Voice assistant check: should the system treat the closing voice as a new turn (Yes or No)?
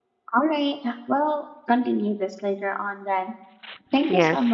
Yes